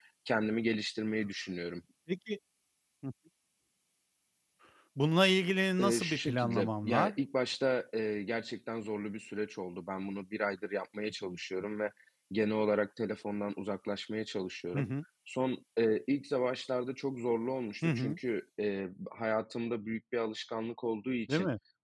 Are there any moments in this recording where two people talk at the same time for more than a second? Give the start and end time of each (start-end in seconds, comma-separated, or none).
5.8-7.1